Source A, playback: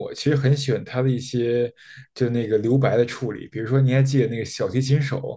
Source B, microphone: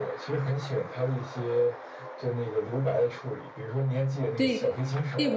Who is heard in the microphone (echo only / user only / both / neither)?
both